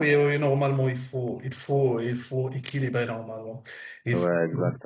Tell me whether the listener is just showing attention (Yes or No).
No